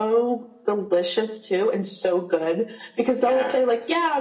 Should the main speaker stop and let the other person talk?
No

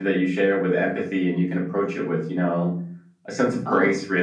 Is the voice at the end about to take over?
Yes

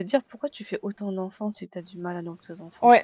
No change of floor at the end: No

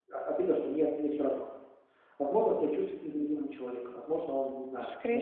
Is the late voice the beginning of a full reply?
Yes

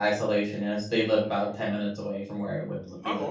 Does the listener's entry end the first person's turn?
Yes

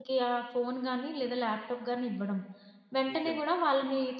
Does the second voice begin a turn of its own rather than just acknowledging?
No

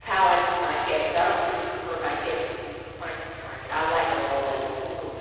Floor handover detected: Yes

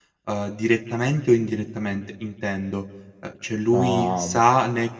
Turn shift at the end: No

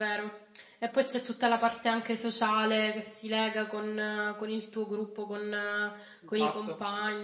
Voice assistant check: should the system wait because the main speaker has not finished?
No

